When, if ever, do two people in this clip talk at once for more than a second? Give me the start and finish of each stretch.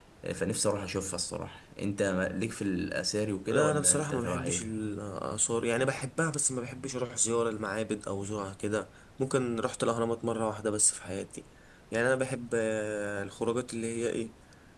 3.5-4.7

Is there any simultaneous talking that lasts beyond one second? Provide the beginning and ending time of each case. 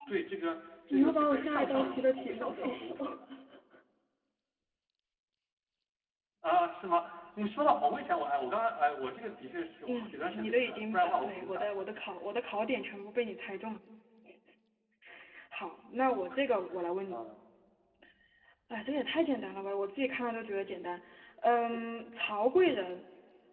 0.9-3.2, 9.9-11.8

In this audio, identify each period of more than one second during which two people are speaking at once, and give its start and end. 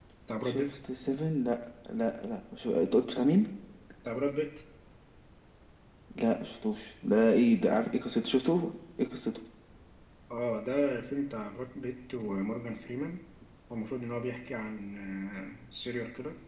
none

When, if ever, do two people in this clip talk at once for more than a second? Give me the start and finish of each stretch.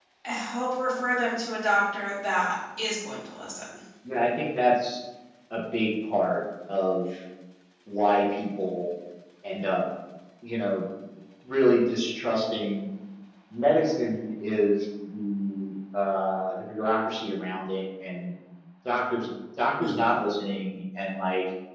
none

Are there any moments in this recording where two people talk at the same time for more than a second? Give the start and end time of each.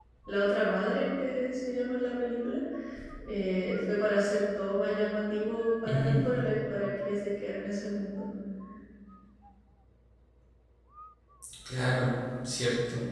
none

